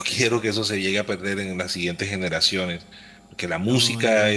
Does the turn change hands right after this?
No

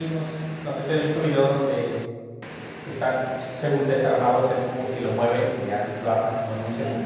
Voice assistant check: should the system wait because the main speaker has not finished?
No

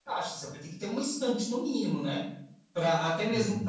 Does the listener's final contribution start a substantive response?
No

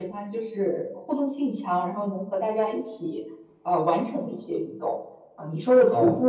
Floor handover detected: No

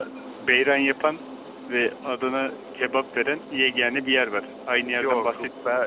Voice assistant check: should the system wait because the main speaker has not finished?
No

